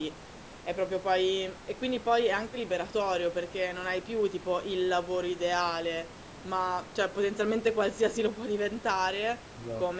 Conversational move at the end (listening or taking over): listening